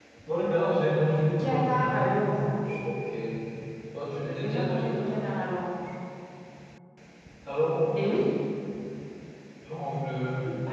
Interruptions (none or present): present